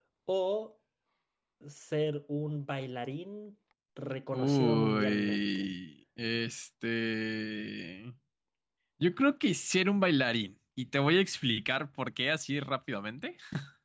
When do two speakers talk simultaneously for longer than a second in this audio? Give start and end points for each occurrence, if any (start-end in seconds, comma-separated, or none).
4.3-5.7